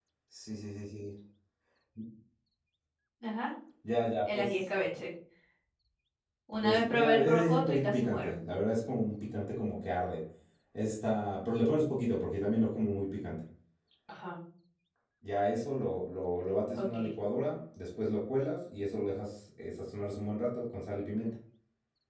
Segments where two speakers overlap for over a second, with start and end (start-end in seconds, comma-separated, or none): 6.6-8.3